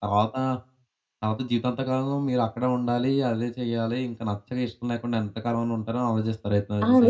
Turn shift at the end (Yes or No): Yes